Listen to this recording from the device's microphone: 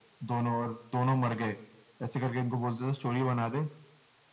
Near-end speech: none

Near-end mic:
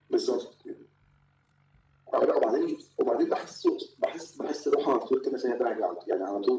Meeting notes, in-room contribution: none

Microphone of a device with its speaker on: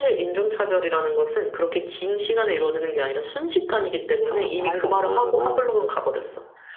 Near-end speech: present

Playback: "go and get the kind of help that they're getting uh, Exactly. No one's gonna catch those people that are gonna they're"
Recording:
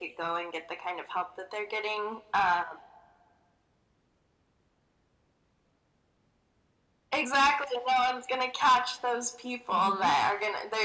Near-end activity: present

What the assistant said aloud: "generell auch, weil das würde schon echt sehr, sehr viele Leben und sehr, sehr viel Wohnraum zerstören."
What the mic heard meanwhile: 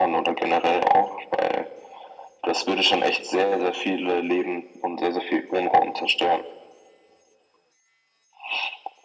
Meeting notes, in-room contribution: none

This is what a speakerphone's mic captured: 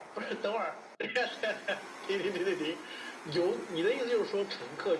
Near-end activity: none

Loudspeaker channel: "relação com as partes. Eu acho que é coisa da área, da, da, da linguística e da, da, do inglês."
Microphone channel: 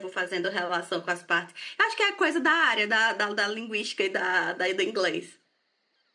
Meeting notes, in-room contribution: none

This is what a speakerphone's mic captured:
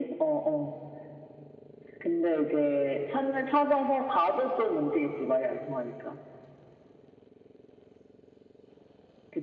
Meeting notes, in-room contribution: none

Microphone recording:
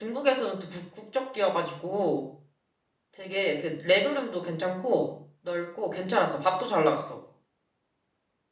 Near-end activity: present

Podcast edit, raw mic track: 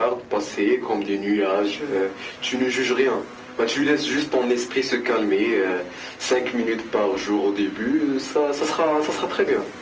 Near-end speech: none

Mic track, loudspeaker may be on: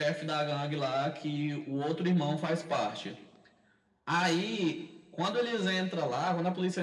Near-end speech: none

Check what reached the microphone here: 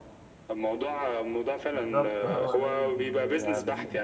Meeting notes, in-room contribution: present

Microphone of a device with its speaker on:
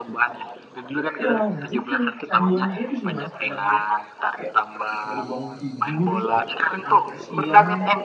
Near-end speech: present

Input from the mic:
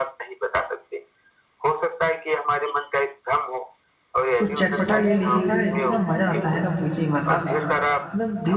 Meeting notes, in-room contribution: present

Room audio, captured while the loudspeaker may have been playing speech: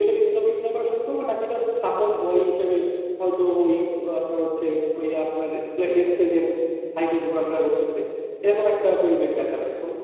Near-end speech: none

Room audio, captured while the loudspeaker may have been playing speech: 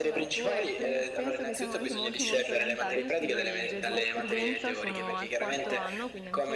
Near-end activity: present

